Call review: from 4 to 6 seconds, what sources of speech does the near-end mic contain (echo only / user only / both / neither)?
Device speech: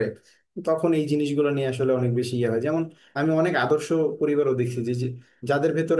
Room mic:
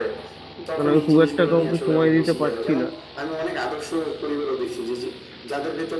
echo only